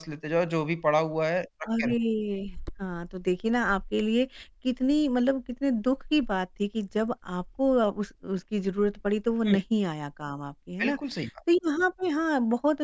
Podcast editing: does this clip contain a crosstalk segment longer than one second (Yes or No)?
No